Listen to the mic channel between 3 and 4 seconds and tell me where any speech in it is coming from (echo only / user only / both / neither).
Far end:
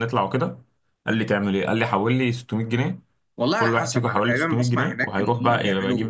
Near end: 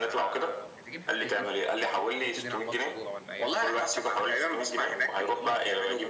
both